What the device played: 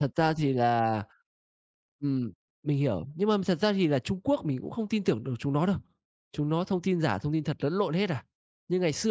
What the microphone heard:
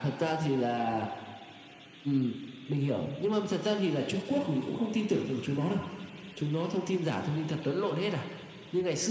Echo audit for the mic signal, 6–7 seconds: echo only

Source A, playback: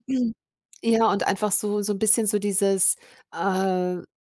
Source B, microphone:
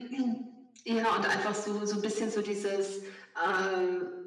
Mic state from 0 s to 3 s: echo only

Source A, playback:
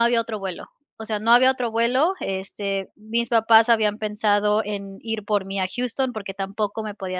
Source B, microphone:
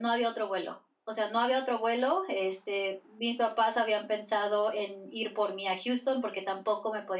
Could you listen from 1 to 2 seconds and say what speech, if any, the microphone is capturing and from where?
echo only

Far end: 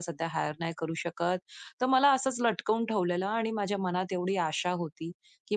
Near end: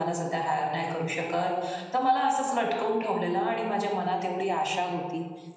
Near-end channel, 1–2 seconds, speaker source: echo only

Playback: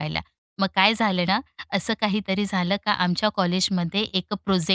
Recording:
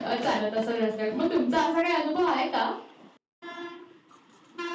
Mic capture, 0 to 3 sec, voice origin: user only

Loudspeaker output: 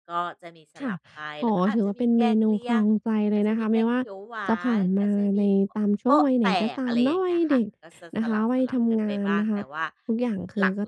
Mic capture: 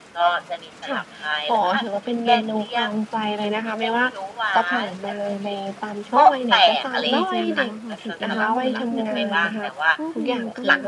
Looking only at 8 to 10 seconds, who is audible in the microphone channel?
both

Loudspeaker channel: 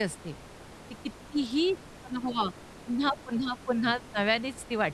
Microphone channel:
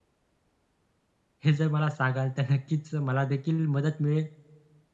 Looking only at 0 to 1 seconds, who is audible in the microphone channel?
neither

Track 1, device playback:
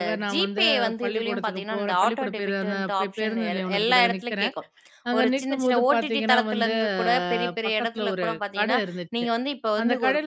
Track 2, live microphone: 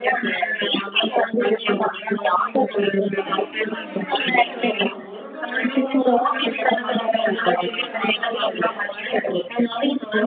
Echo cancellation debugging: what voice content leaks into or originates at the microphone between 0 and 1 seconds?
echo only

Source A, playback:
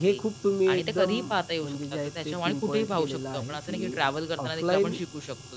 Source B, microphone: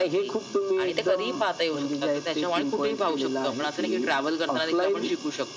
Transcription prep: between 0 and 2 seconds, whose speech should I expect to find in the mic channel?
echo only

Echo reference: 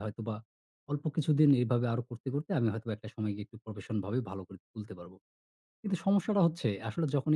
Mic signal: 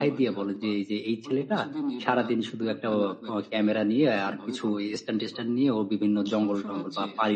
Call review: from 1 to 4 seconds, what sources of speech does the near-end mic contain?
both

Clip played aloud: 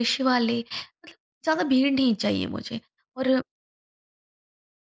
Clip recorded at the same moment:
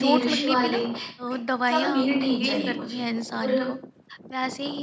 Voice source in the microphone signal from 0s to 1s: both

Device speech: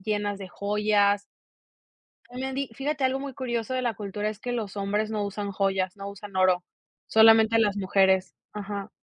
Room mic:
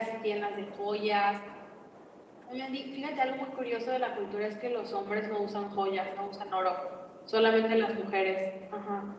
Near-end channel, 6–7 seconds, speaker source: echo only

